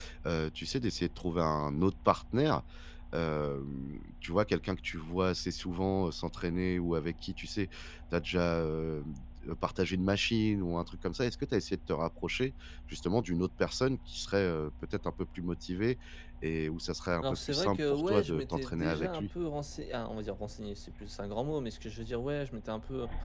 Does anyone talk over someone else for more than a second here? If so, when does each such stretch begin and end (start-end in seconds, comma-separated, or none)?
17.2-19.3